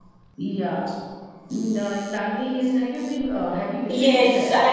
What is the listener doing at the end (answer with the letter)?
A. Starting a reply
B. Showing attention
A